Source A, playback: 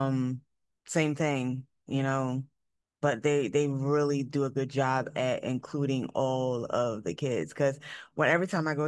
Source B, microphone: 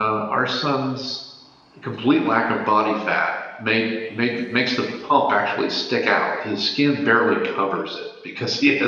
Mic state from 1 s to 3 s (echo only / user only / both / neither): user only